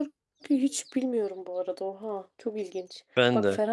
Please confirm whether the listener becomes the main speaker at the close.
No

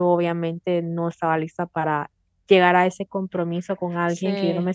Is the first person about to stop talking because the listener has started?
No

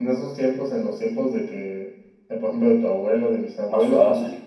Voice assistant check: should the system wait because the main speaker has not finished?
Yes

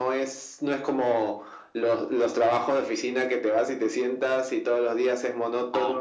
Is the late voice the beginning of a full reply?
No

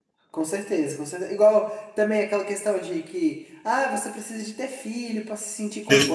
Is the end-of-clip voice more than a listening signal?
Yes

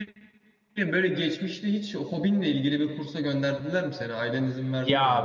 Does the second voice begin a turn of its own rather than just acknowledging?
Yes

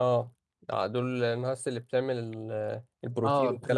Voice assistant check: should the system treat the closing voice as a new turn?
Yes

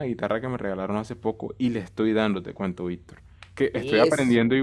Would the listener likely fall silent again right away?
Yes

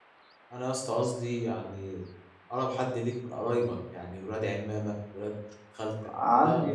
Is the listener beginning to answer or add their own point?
Yes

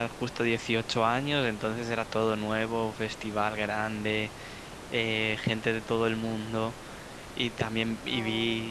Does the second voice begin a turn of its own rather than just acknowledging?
No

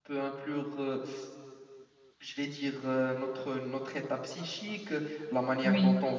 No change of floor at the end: Yes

